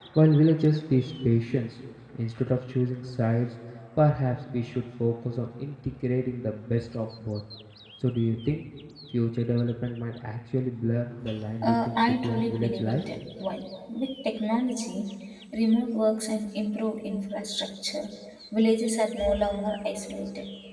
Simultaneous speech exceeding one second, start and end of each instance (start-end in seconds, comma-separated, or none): 11.7-13.0